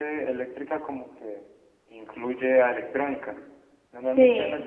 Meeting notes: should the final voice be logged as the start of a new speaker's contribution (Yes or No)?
No